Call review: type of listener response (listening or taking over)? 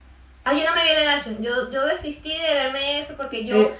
taking over